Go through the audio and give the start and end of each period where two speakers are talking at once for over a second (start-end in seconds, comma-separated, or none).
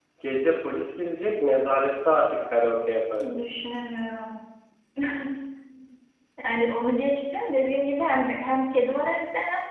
none